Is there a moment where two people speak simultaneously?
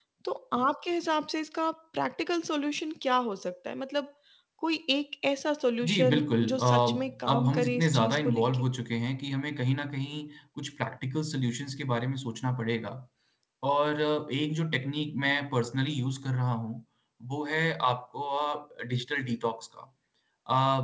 Yes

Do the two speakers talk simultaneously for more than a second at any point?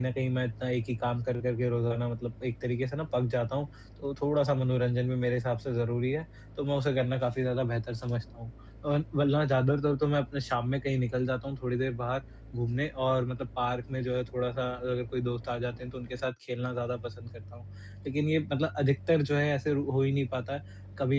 No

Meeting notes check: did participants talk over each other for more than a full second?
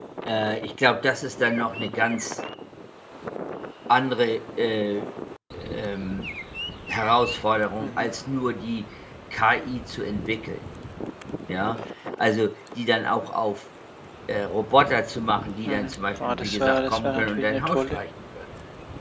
Yes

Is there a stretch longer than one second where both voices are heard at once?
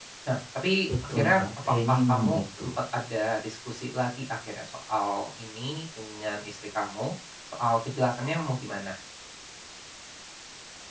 Yes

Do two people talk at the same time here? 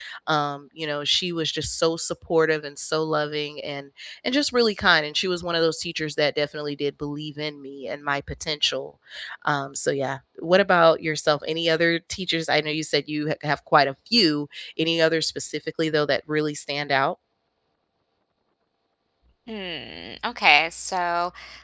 No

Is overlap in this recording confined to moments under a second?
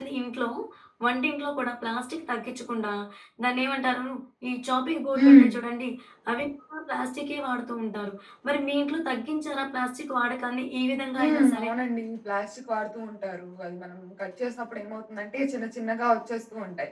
Yes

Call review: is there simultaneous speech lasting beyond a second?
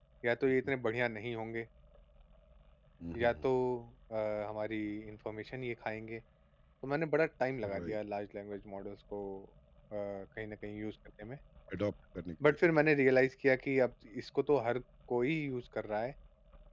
No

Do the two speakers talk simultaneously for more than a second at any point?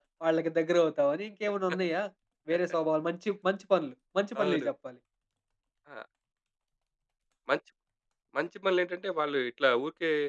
No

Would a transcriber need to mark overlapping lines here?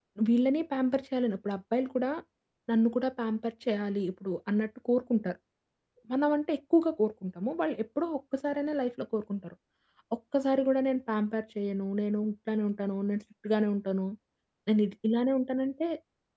No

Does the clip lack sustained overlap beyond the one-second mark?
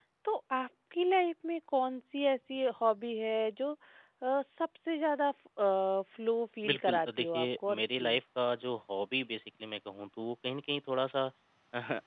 No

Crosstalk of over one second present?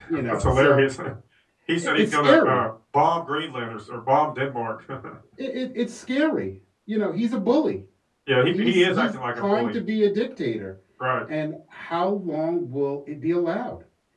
Yes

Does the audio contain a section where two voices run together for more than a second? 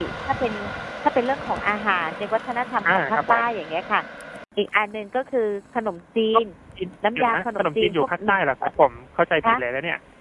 Yes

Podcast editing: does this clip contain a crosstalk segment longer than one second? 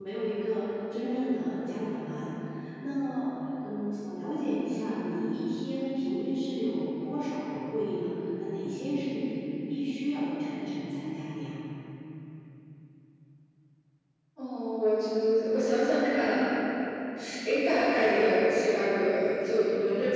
No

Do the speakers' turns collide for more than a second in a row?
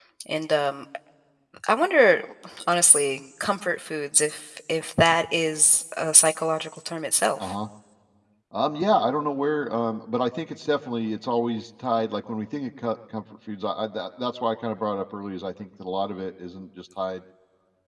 No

